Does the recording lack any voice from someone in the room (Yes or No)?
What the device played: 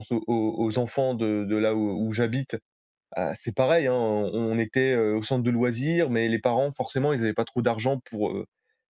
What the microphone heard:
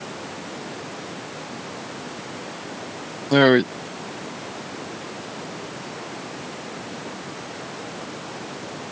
No